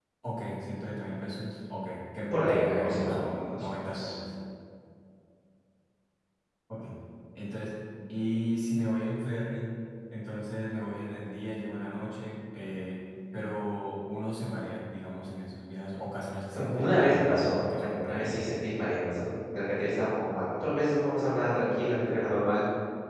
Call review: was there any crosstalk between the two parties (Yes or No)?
Yes